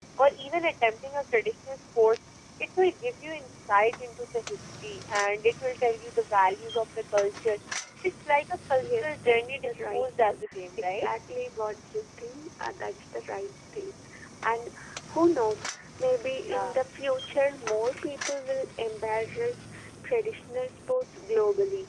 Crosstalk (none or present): present